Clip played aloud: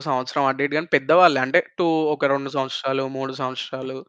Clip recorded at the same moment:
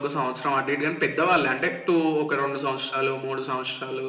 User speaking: No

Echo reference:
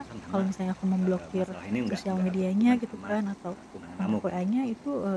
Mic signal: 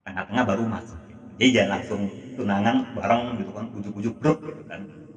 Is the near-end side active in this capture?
Yes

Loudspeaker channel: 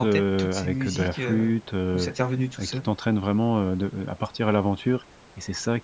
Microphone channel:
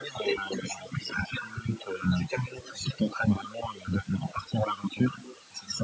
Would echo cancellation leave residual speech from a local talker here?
No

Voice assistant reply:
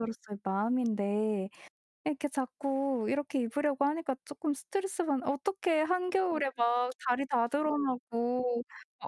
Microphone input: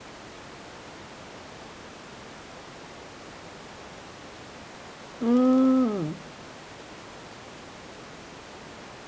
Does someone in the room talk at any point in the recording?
Yes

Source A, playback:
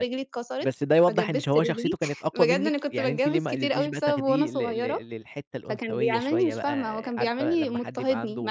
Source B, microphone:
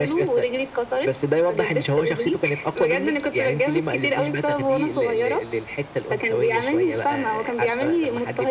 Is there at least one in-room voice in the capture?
No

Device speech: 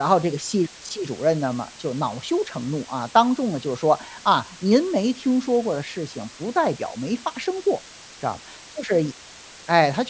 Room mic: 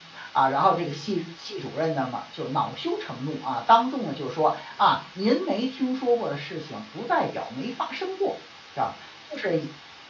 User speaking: No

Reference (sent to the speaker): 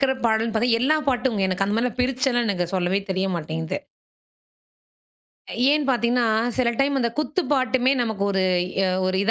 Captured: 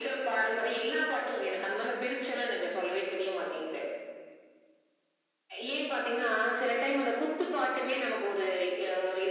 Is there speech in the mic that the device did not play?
No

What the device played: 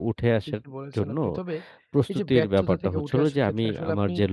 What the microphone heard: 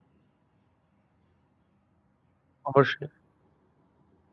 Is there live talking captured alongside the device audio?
Yes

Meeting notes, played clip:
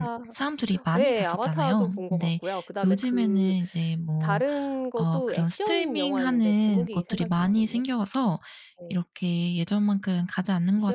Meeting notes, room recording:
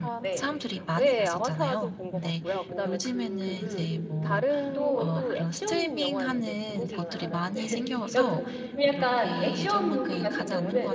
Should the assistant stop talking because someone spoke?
Yes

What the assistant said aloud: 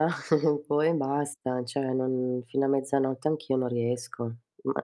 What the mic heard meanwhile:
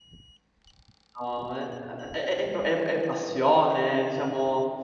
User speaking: Yes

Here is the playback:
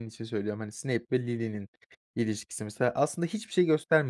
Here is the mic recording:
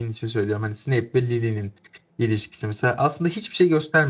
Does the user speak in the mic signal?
No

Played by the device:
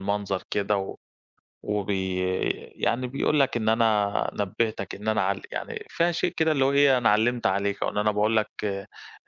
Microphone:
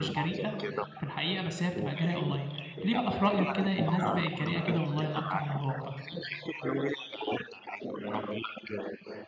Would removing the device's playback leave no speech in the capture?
No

